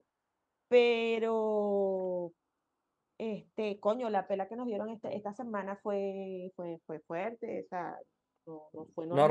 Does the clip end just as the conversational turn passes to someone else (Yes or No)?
Yes